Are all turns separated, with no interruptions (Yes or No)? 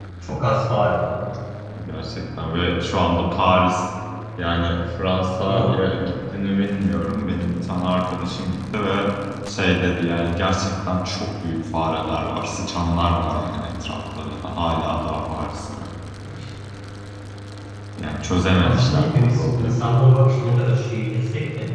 No